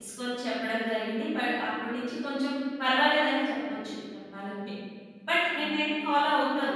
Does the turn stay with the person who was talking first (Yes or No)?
Yes